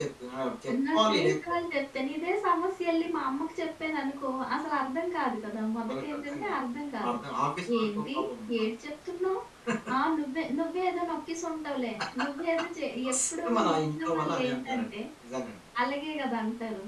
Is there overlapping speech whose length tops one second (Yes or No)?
Yes